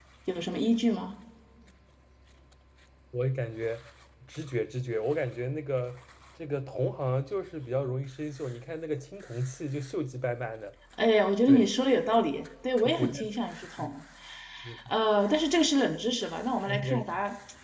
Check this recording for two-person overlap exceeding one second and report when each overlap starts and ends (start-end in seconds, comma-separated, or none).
none